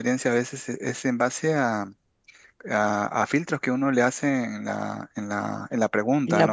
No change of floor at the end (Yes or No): Yes